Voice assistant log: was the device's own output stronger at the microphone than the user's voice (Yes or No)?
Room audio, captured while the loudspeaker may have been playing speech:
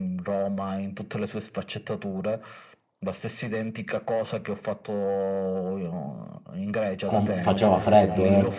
No